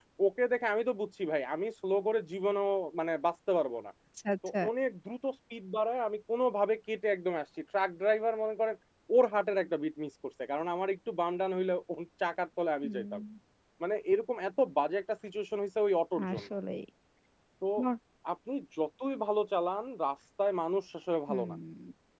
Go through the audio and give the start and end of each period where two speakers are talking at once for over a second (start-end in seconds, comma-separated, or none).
none